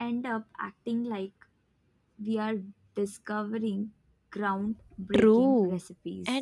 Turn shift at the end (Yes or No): Yes